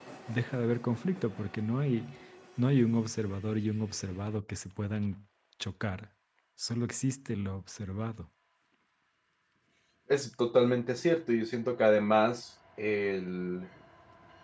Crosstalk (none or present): none